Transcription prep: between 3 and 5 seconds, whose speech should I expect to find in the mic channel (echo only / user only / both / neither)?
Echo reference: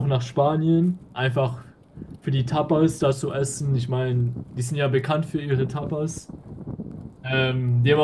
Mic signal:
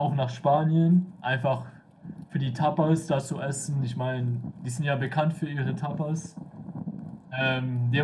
echo only